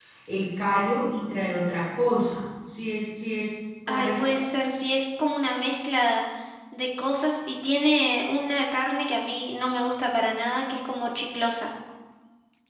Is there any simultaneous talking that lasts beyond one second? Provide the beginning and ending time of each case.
none

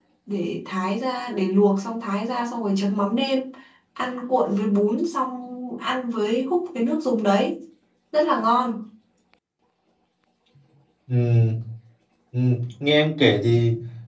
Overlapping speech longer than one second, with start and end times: none

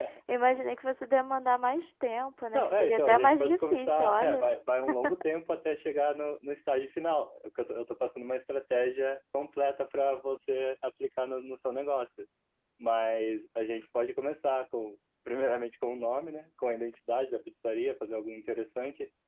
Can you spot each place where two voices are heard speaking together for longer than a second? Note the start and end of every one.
2.5-4.4

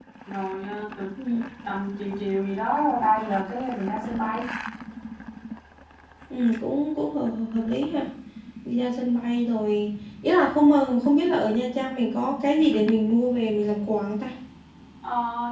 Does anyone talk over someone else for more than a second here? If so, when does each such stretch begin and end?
none

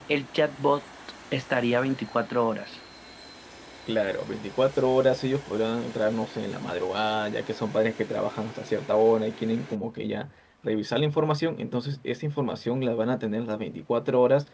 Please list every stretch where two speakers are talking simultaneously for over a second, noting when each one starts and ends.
none

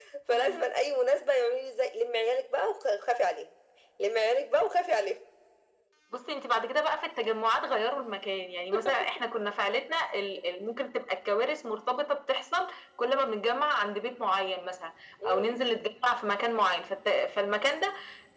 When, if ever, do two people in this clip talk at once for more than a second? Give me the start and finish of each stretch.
none

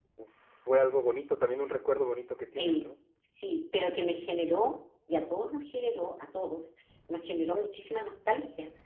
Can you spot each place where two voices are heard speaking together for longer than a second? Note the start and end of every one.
none

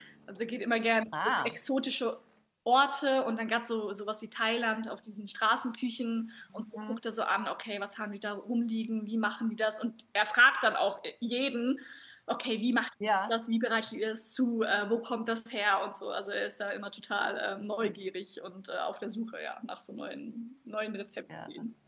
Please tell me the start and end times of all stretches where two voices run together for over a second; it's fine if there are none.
none

